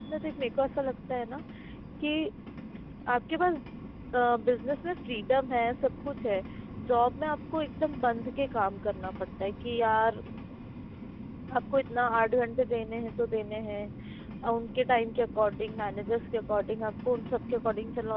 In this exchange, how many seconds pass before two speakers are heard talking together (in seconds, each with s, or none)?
none